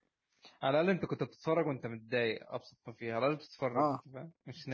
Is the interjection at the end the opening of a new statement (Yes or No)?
No